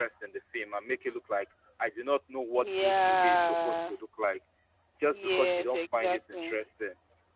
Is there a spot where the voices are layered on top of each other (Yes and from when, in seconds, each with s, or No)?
Yes, from 2.6 s